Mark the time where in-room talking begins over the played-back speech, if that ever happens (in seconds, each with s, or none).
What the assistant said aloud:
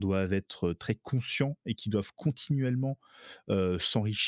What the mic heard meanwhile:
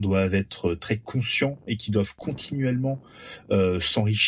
none